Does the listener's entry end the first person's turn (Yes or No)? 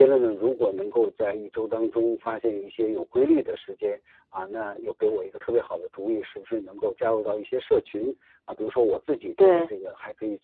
No